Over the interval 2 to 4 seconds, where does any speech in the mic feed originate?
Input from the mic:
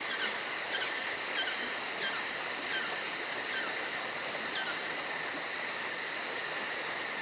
neither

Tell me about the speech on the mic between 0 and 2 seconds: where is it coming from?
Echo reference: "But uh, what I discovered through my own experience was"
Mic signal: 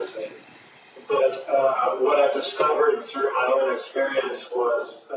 echo only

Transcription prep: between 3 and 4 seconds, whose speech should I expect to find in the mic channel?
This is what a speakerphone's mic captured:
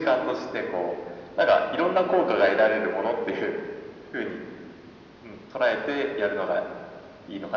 echo only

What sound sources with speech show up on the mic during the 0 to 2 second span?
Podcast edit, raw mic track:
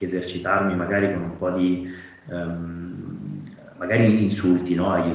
user only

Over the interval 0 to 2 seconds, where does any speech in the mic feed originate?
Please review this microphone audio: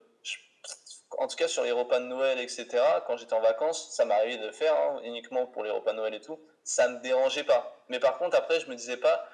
echo only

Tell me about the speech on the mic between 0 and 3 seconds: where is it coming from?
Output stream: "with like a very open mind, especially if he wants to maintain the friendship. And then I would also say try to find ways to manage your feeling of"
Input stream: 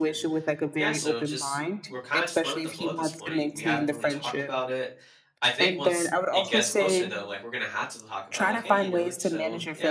both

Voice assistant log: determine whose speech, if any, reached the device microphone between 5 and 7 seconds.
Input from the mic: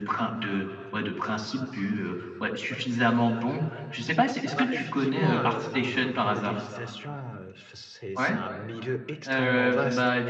both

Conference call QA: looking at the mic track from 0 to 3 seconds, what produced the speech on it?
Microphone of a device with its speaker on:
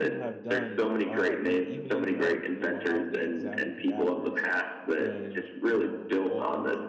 both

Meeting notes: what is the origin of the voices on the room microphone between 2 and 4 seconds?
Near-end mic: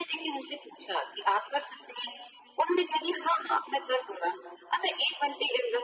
echo only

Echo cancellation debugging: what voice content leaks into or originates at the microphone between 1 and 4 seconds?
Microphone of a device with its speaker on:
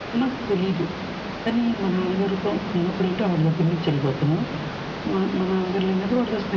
echo only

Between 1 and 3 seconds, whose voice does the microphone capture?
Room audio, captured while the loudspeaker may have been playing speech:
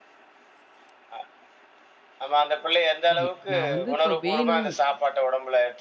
echo only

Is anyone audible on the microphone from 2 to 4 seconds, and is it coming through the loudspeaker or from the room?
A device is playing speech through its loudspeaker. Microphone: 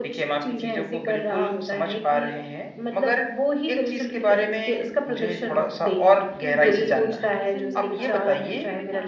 echo only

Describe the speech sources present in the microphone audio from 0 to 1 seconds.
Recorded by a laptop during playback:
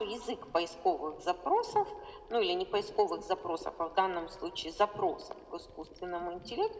echo only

